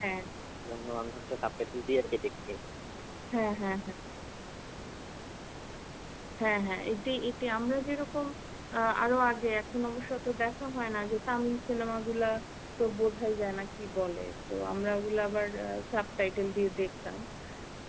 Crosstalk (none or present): none